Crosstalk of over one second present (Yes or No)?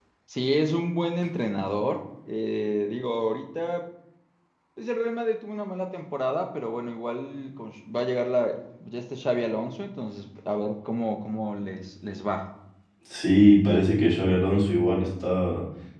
No